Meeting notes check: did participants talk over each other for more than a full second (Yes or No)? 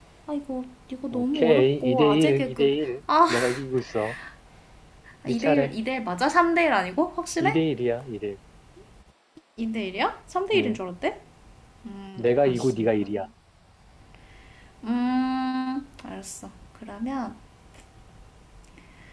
Yes